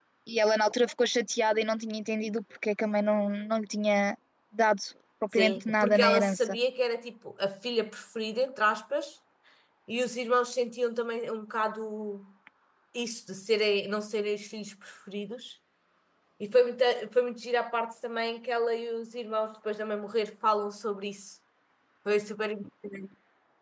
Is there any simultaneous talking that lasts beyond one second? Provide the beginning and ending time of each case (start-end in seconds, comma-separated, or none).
5.3-6.6